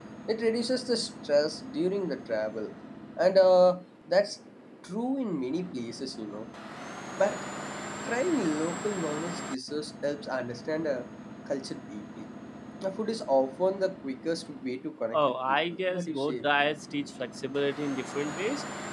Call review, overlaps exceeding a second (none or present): present